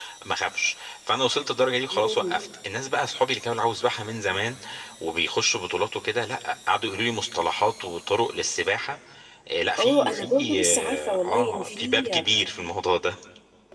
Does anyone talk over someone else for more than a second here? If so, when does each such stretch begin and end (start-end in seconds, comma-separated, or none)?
9.8-12.1